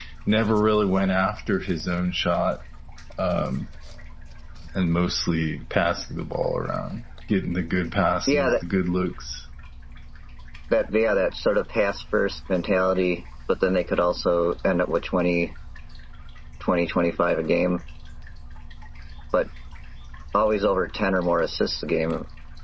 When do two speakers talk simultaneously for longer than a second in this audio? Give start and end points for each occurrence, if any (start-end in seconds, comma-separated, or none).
none